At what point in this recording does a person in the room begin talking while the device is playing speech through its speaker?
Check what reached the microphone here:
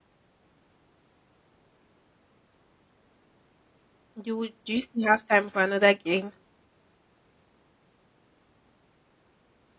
4 s

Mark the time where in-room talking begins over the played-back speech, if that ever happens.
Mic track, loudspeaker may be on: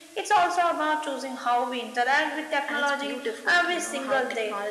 none

